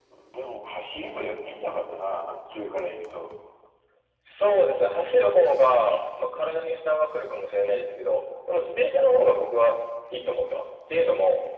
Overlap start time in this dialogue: none

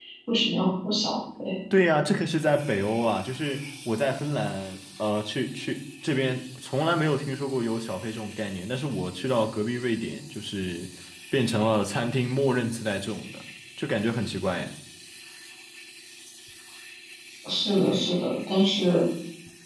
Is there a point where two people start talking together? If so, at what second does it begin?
none

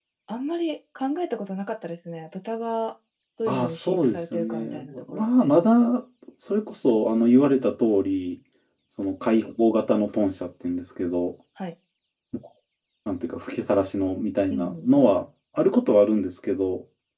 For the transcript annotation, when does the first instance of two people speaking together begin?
3 s

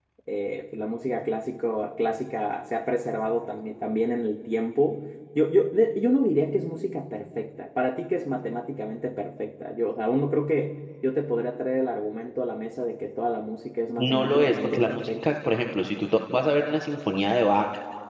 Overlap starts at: 14 s

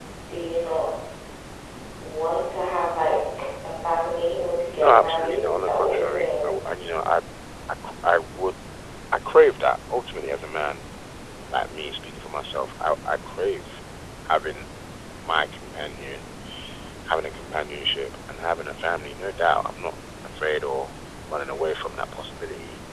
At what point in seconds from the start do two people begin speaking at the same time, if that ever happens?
5 s

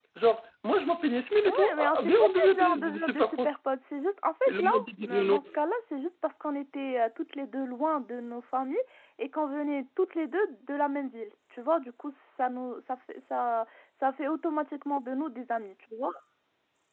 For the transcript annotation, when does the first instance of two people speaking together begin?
1 s

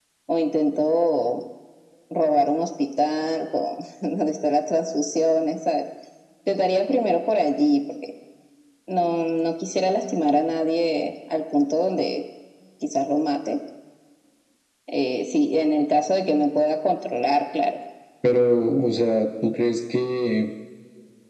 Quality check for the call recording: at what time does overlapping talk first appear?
none

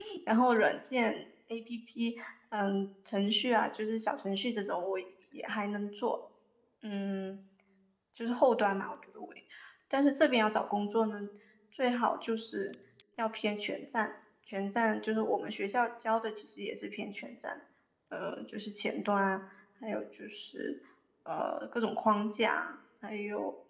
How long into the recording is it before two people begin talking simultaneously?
none

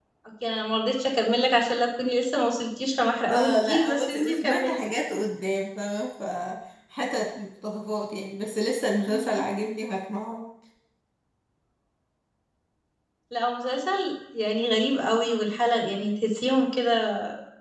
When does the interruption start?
3 s

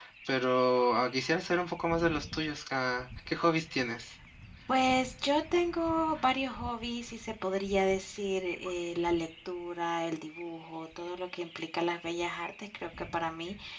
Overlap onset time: none

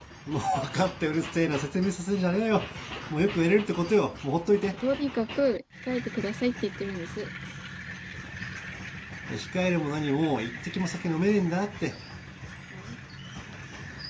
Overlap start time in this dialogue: none

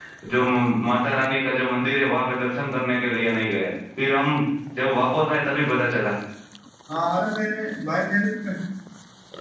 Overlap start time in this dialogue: none

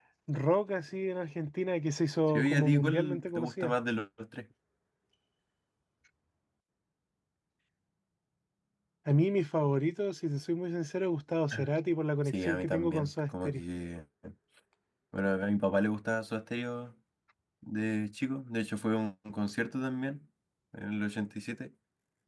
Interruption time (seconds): 2 s

